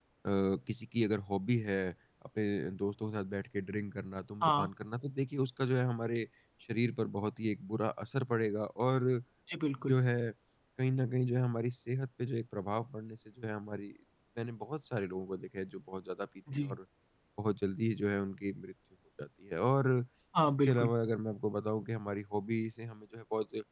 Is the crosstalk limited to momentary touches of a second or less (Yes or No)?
Yes